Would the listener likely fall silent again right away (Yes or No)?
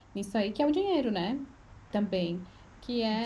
Yes